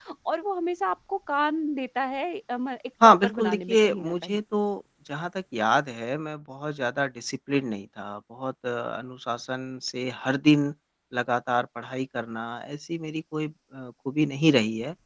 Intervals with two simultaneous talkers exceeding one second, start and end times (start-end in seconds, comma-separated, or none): 3.0-4.4